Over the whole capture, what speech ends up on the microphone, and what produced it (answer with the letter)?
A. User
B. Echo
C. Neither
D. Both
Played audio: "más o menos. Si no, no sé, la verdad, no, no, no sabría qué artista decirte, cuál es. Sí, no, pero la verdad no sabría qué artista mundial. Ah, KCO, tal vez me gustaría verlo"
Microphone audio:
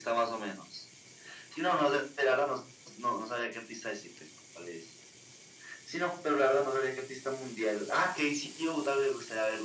B